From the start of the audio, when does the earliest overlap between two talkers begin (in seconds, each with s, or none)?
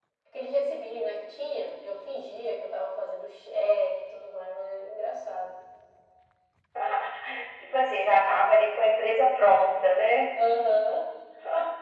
none